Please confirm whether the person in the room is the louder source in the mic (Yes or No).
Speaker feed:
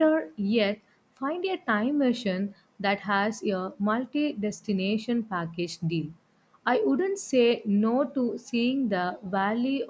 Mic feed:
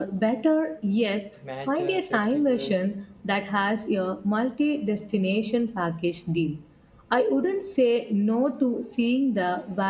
No